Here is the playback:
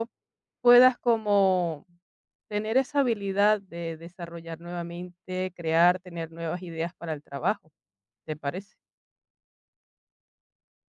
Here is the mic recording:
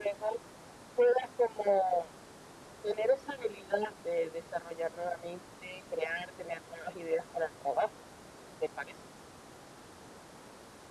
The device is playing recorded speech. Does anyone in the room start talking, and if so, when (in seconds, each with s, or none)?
none